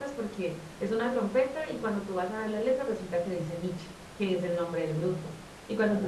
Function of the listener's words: listening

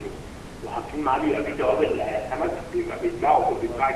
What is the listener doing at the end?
listening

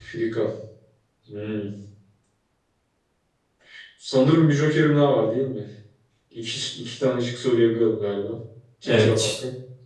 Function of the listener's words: taking over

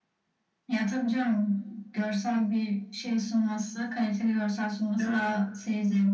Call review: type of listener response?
listening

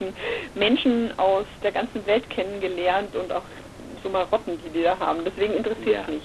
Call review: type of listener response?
taking over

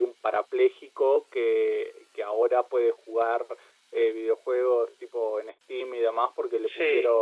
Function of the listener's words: listening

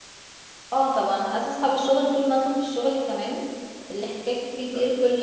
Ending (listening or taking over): listening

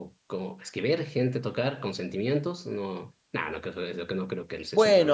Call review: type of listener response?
taking over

